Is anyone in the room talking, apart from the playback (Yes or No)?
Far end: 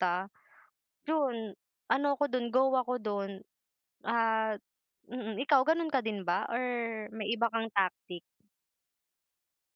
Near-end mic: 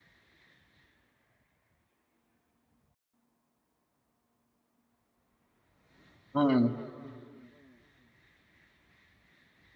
Yes